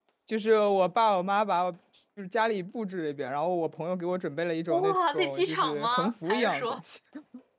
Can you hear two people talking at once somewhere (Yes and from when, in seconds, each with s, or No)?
Yes, from 4.7 s